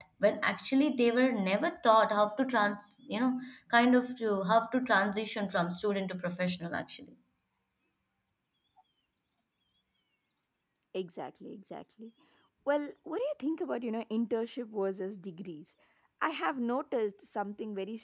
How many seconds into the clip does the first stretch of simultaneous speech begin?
none

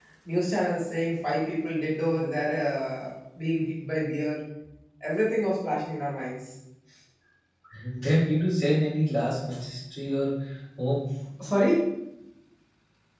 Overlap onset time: none

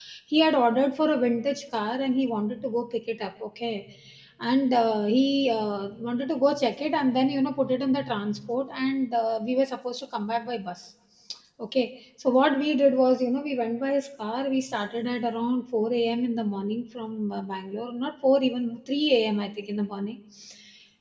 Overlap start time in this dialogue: none

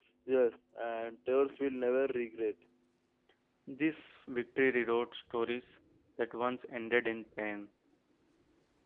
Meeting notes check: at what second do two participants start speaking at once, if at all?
none

